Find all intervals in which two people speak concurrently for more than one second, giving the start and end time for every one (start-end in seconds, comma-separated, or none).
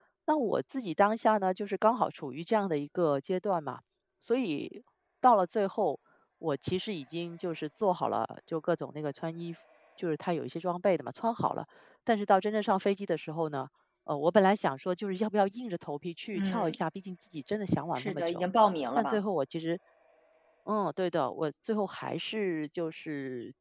none